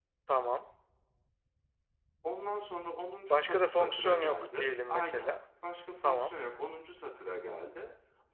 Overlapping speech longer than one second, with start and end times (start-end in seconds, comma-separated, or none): 3.3-5.3